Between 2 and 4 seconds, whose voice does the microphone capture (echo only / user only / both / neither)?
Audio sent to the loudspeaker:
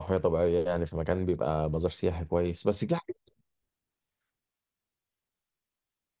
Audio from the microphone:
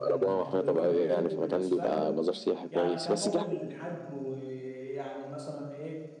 both